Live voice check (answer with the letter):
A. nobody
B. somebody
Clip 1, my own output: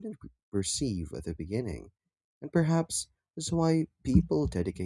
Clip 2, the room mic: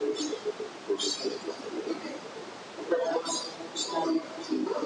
A